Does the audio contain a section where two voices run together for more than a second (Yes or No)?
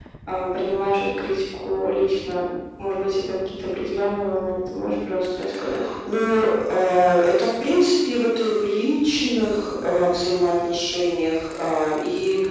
No